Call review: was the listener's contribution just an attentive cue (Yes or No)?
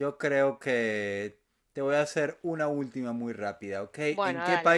Yes